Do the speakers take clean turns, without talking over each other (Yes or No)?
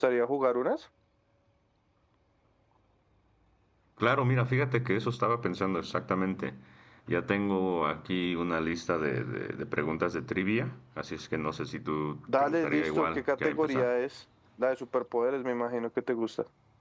No